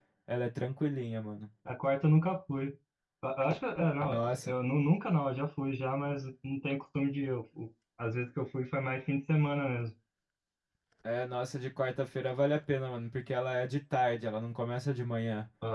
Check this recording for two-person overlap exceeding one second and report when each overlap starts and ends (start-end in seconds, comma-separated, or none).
none